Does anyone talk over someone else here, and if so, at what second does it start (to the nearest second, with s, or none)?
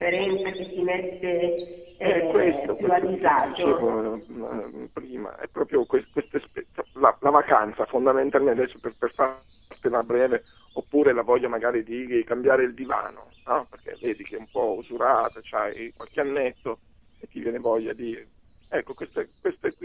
2 s